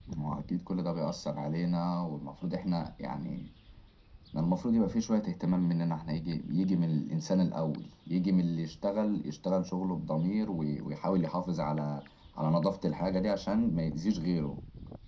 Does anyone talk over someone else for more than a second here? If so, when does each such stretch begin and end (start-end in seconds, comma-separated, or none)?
none